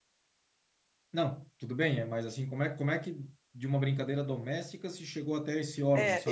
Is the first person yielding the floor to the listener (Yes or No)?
Yes